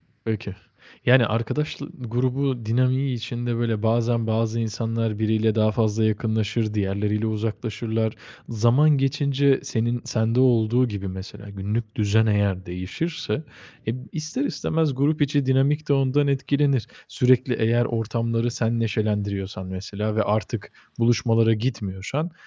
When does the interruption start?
none

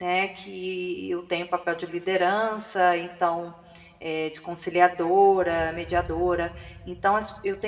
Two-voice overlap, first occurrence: none

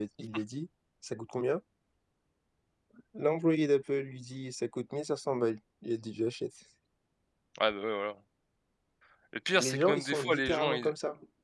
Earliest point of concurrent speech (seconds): 10 s

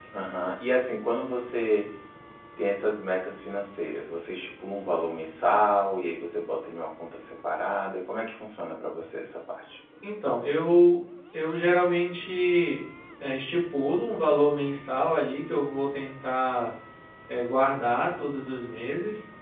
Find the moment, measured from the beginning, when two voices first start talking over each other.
none

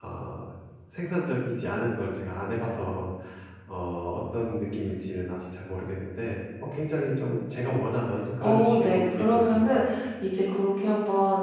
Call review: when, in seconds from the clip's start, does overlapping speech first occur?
8 s

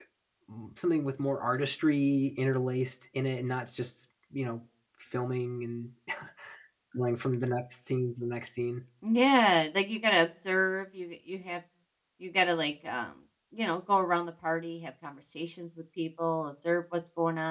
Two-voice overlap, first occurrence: none

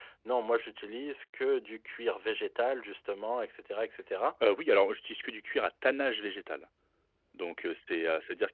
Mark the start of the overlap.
none

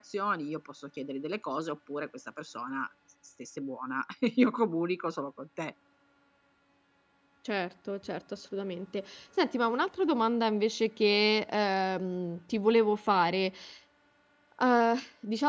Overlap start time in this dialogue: none

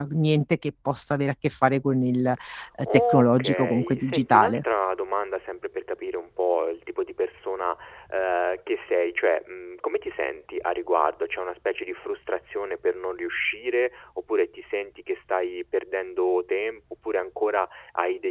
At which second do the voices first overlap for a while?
3 s

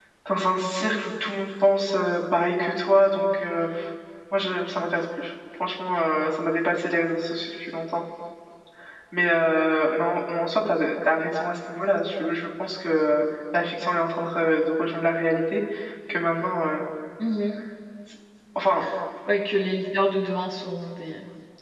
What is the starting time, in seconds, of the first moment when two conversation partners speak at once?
none

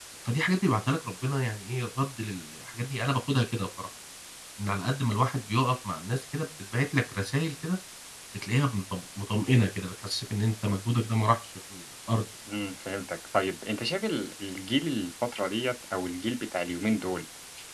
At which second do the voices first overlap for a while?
none

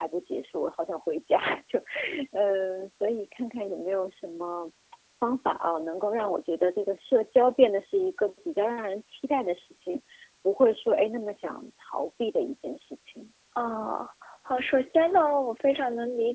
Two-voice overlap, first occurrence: none

